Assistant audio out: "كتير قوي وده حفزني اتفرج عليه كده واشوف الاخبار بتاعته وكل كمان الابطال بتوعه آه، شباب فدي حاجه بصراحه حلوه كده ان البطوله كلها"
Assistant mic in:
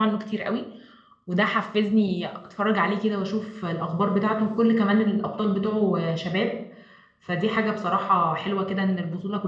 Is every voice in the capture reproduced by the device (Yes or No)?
Yes